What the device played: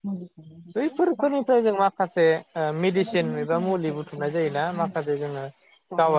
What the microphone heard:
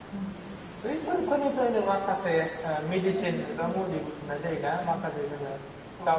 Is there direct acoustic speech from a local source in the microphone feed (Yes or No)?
No